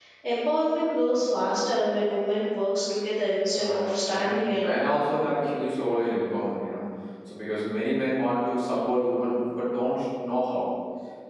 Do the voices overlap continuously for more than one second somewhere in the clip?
Yes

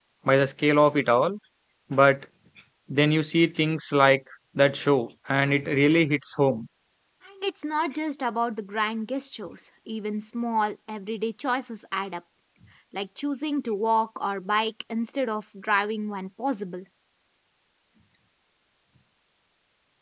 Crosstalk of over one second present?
No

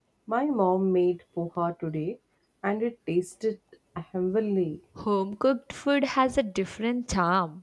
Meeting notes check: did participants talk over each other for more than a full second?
No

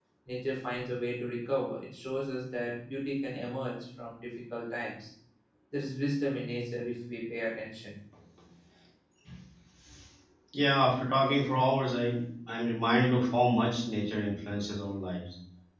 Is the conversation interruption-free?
Yes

